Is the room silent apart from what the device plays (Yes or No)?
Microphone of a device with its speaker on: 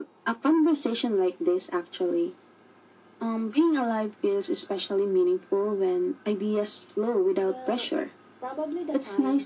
No